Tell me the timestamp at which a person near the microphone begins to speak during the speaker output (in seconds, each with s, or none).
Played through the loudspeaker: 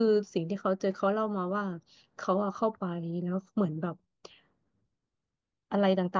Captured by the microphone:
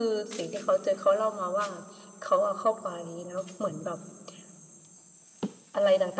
none